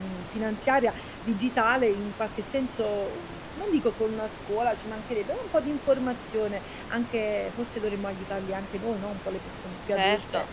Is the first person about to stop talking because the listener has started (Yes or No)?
Yes